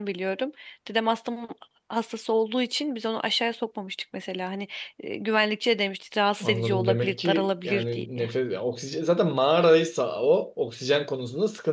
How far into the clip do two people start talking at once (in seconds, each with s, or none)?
6.4 s